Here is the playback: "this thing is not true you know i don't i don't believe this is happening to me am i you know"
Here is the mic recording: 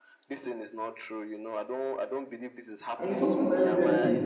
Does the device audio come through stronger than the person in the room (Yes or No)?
No